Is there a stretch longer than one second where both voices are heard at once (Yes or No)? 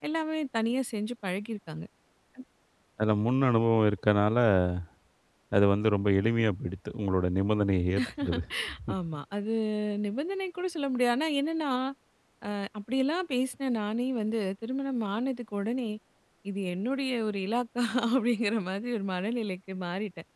No